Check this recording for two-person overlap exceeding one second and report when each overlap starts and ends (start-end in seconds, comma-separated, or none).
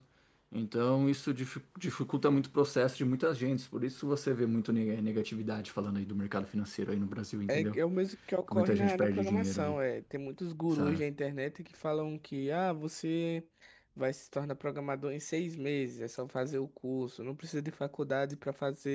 8.5-9.8